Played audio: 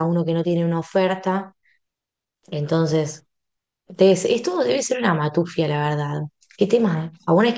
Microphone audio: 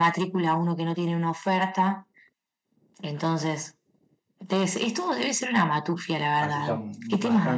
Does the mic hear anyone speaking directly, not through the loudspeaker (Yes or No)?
Yes